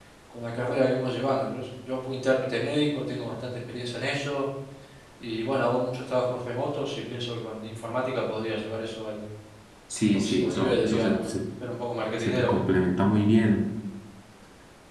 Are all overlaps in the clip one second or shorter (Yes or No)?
No